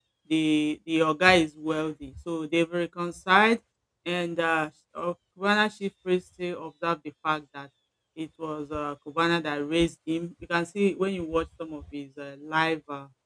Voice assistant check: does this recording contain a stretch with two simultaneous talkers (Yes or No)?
No